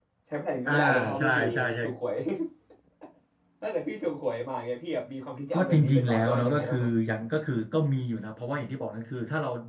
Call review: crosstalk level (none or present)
present